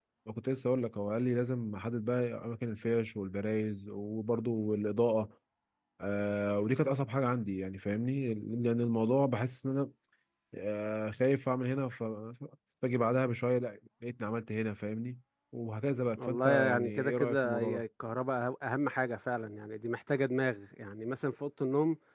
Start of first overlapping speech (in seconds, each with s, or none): 16.2 s